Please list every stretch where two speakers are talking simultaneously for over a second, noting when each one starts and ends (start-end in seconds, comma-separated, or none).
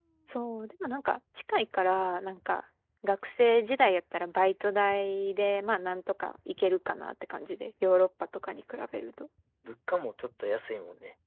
none